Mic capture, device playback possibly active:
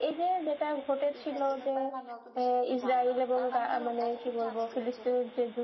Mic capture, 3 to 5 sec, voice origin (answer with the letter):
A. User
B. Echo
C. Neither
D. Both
D